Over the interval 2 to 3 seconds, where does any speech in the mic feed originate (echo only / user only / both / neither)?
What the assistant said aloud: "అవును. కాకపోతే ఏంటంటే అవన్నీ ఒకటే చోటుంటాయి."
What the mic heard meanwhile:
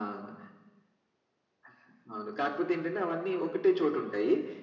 echo only